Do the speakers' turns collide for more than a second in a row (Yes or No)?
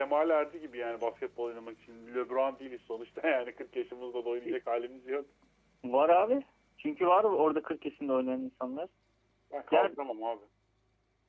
No